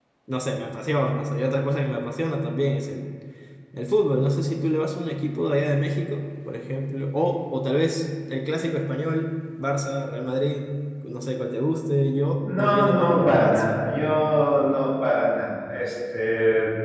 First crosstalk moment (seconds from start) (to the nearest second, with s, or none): 12 s